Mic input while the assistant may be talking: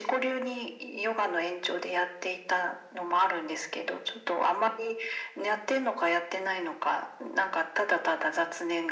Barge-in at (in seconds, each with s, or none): none